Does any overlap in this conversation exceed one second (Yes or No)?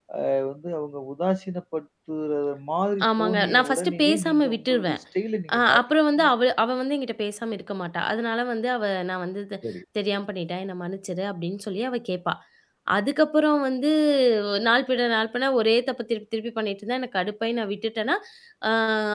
Yes